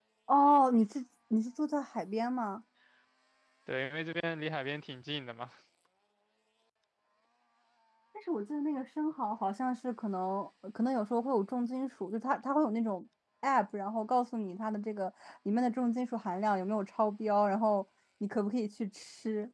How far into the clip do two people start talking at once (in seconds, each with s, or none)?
none